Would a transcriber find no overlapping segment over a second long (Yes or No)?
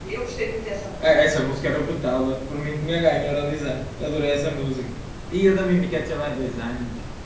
Yes